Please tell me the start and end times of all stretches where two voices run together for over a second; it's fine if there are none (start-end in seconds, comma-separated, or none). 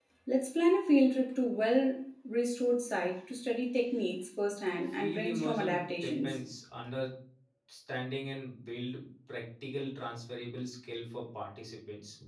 4.9-6.3